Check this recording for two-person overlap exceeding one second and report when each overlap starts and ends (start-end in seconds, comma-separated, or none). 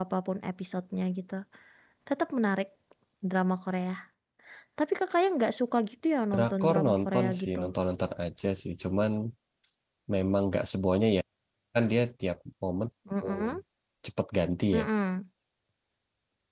6.3-7.6